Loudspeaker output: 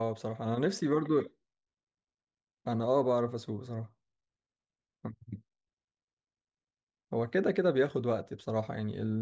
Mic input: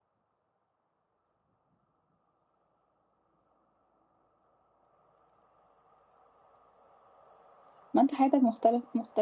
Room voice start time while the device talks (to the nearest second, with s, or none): 8 s